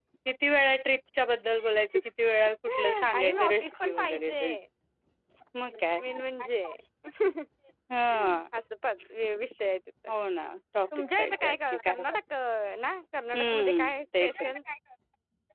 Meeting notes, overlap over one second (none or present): present